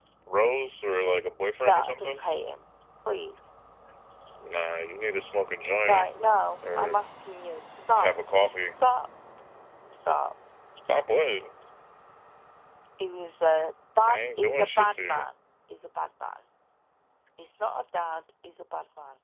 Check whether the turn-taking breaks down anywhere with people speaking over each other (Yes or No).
Yes